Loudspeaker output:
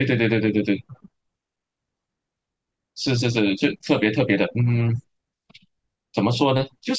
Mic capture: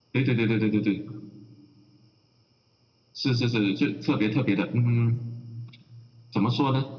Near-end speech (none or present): none